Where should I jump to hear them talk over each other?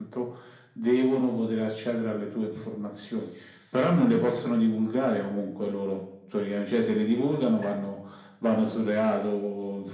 none

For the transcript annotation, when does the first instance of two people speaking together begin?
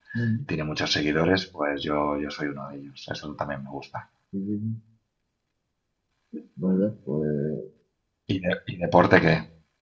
none

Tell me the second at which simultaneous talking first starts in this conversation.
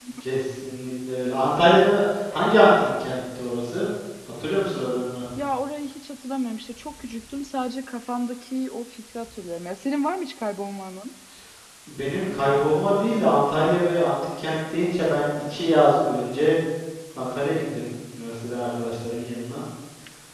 none

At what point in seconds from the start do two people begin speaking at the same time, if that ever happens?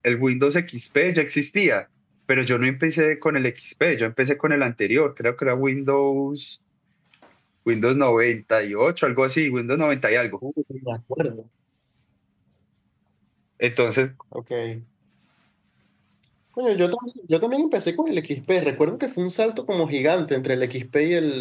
none

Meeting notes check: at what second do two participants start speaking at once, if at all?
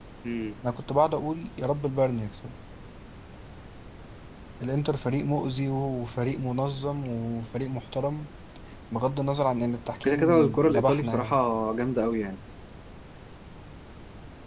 10.0 s

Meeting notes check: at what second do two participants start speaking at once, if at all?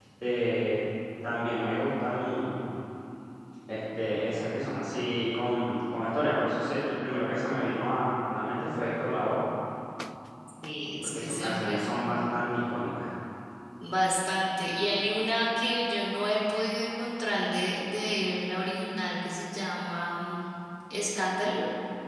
11.0 s

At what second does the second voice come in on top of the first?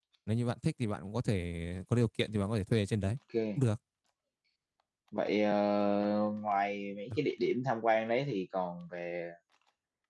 none

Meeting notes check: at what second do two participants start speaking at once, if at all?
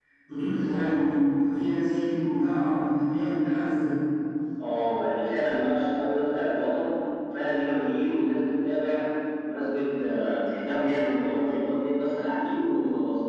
none

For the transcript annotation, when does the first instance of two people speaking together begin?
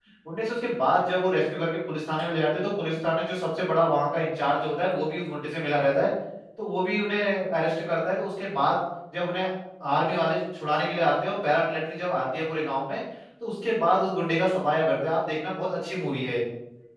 none

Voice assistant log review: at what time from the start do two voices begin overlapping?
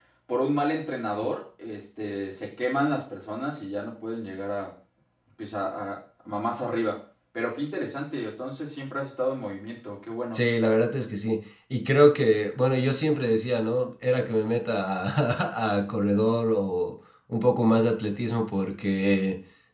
none

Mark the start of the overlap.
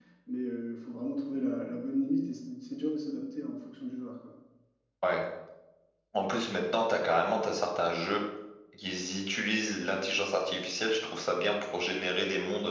none

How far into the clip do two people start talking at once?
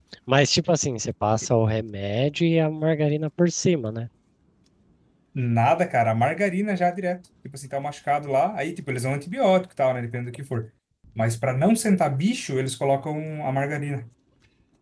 none

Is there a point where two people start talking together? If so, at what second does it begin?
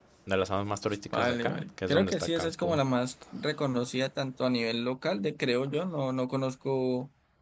1.1 s

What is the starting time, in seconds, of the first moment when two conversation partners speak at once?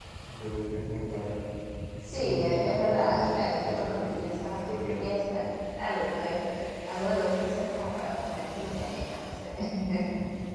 2.0 s

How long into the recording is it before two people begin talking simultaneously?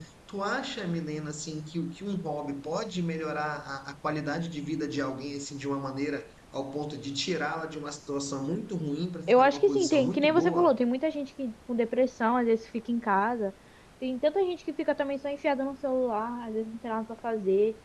9.3 s

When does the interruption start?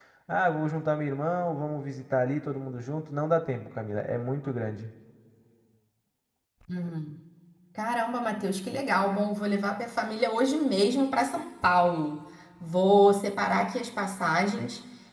none

